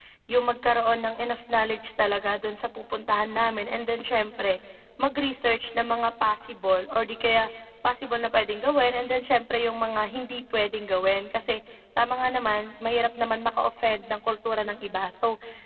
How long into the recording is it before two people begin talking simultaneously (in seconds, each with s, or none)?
none